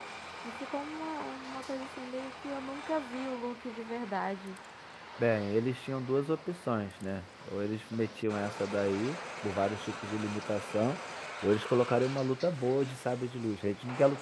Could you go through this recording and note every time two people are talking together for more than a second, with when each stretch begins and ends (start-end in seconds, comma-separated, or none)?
none